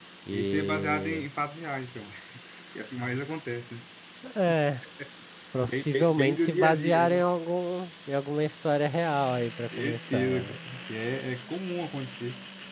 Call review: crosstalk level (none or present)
present